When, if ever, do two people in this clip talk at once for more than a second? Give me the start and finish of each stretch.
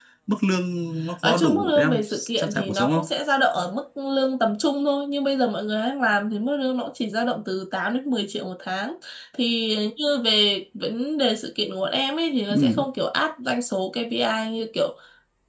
1.2-3.1

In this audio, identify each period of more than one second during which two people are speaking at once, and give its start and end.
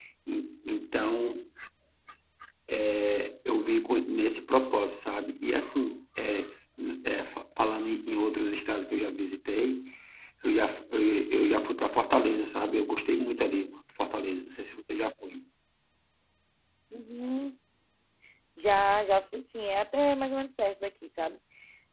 none

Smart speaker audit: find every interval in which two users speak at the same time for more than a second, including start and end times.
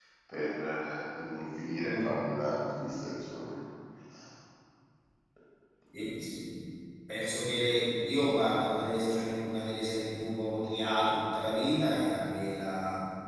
none

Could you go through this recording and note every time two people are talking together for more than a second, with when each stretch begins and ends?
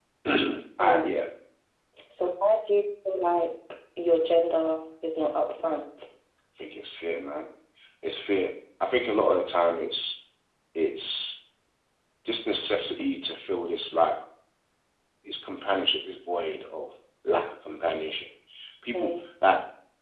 none

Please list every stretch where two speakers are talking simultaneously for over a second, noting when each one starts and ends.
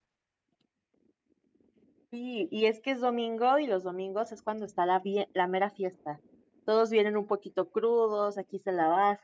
none

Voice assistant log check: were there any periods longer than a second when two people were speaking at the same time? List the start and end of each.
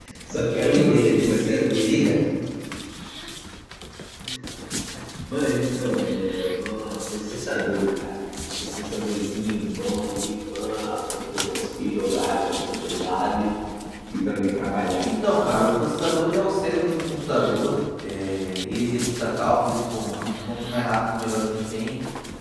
0.5-2.0

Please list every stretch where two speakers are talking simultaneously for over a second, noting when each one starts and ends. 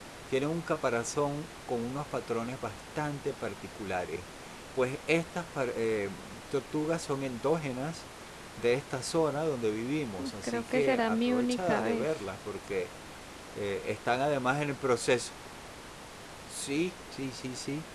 10.2-12.1

